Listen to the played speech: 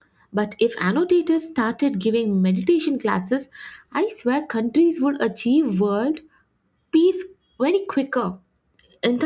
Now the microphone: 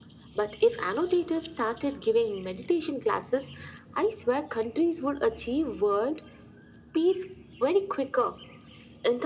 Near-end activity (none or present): none